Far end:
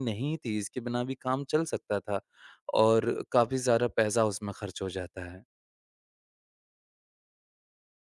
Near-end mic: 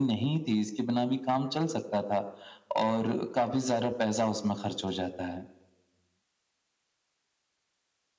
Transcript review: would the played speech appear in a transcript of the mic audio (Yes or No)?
Yes